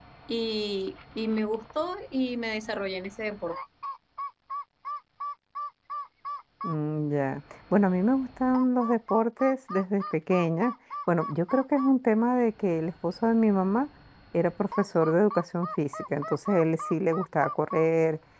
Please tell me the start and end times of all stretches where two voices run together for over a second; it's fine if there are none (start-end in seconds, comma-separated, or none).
none